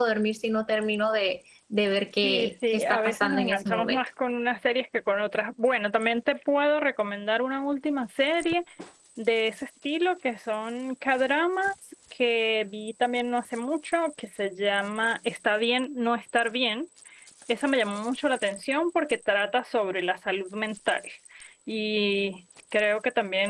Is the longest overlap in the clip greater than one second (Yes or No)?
Yes